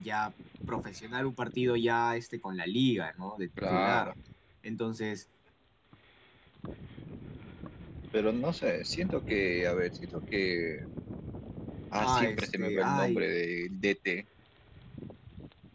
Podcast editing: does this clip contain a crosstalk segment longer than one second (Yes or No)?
Yes